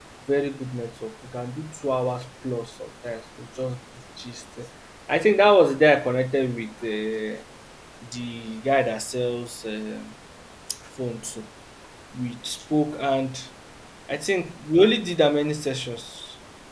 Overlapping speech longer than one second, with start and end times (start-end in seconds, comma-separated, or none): none